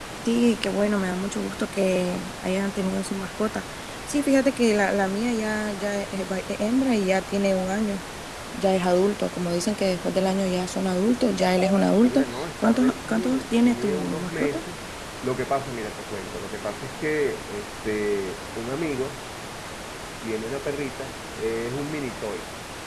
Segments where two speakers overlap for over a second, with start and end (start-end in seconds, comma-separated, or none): 12.0-14.6